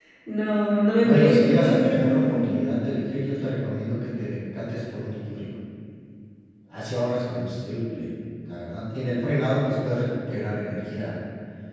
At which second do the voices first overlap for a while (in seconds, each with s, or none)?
1.0 s